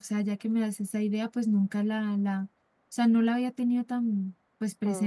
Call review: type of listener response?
listening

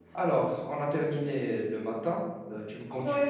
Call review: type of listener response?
listening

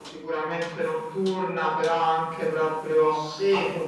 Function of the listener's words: listening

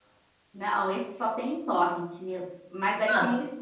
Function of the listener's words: listening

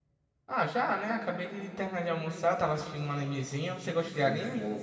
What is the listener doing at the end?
taking over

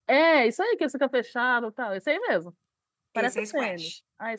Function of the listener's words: taking over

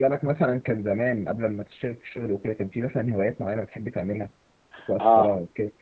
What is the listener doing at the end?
taking over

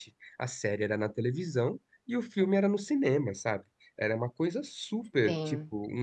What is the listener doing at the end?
listening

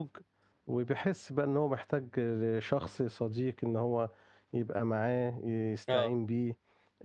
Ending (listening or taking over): listening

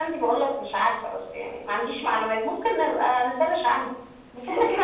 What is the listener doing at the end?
listening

